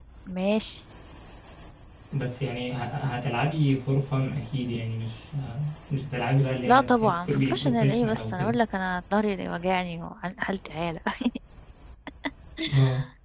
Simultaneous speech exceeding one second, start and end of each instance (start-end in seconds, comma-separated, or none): 6.7-8.5